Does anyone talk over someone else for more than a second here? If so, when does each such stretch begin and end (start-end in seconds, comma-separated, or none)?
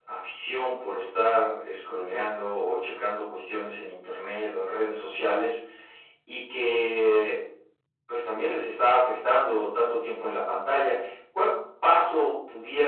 none